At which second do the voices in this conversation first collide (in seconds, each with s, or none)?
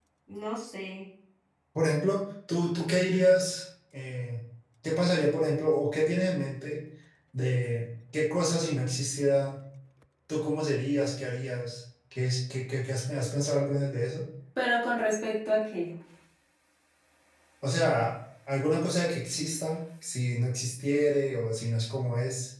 none